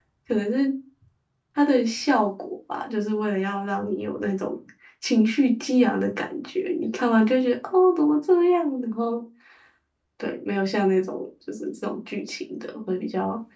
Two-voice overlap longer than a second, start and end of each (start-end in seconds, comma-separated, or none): none